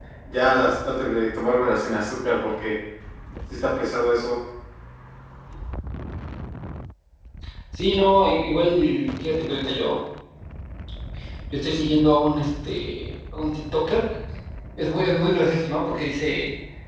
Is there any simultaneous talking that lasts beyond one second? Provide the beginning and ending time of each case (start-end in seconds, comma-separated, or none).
none